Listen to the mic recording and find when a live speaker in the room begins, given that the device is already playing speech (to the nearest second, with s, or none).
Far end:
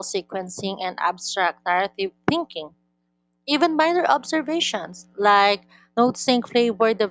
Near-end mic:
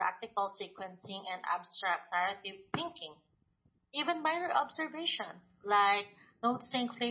none